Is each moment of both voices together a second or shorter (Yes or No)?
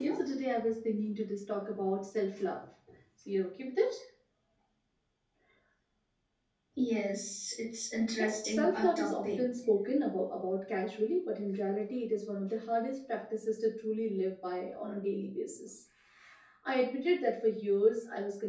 No